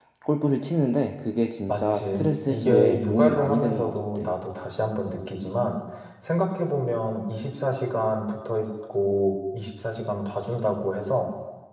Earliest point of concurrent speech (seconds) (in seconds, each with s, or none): 1.7 s